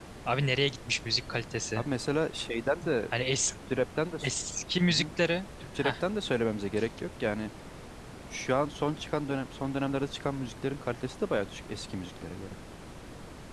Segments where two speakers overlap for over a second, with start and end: none

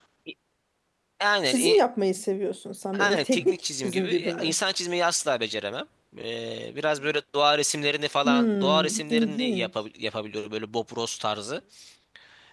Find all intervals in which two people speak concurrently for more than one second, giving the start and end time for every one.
3.0-4.5, 8.2-9.7

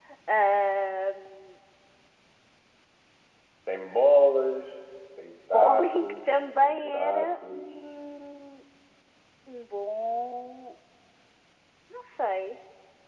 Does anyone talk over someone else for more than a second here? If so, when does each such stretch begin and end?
5.5-7.7

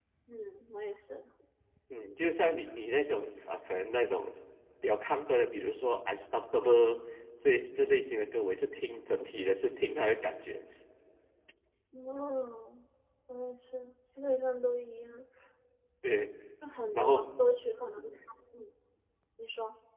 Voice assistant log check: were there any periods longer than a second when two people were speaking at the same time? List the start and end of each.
none

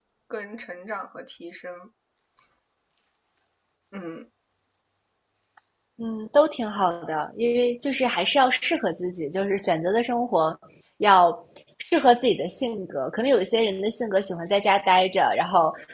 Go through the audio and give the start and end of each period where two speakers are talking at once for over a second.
none

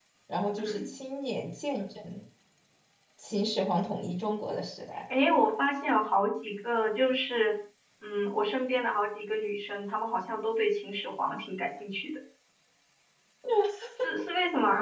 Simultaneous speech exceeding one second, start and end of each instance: none

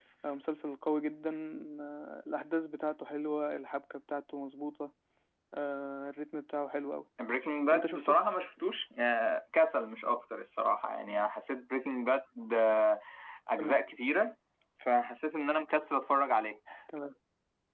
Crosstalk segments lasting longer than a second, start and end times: none

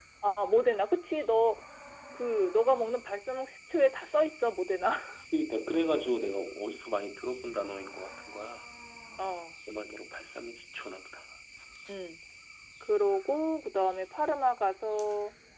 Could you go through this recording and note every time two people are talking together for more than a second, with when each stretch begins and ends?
none

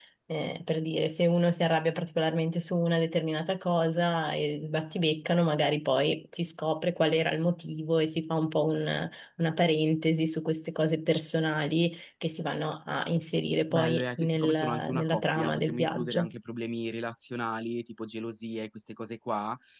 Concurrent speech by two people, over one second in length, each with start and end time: 13.7-16.3

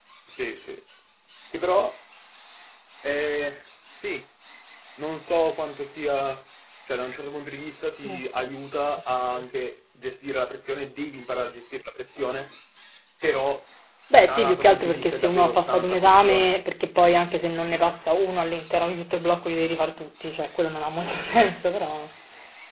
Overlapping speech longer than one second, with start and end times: 14.2-16.5

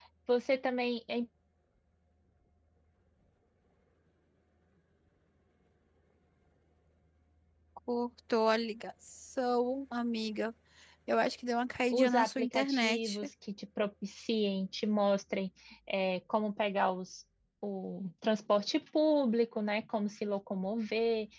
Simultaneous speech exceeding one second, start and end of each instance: 11.9-13.2

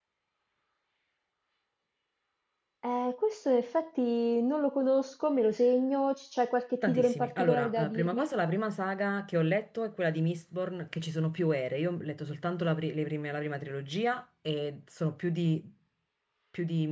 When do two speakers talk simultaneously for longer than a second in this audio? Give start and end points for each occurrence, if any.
6.8-8.3

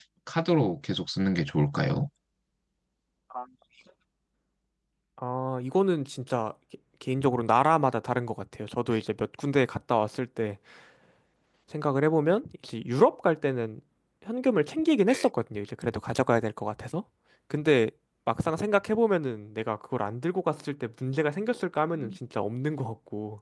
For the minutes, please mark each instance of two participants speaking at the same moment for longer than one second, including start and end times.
none

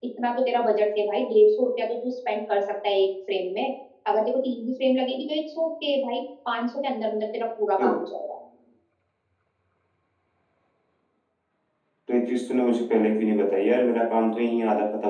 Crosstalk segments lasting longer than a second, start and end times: none

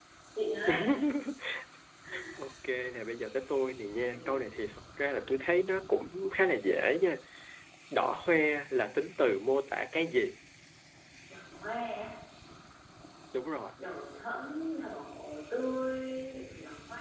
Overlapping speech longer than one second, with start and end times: none

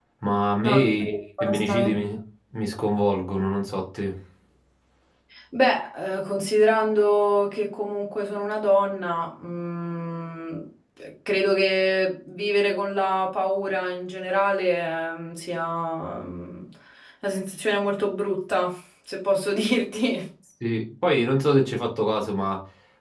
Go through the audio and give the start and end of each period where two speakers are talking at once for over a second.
0.6-2.0

